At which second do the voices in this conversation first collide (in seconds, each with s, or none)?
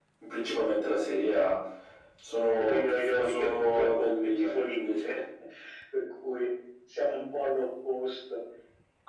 2.6 s